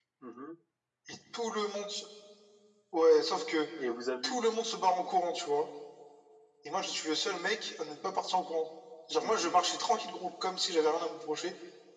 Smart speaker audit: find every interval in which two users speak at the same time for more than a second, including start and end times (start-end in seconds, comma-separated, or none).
none